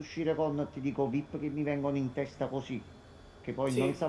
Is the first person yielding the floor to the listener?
No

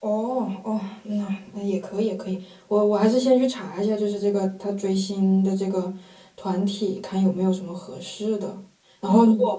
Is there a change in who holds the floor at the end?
No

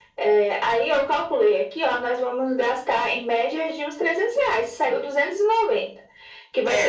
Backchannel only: Yes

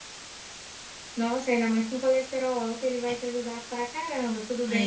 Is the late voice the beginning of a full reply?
No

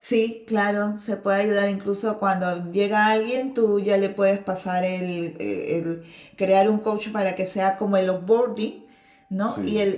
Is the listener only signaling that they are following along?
Yes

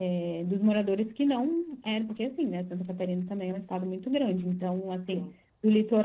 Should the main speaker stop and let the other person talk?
No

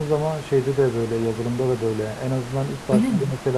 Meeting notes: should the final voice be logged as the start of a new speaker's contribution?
No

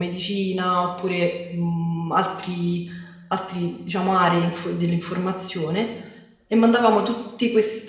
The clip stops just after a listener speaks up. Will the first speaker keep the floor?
Yes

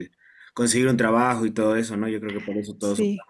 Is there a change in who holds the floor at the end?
No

